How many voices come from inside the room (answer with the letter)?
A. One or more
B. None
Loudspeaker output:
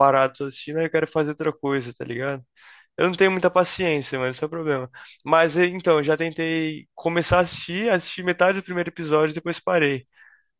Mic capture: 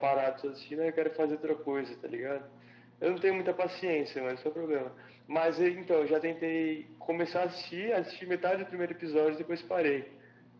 B